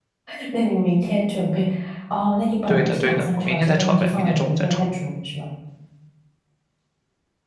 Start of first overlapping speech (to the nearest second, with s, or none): 3 s